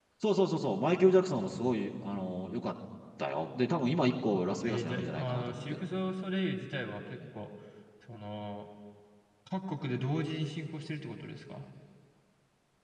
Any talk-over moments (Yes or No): Yes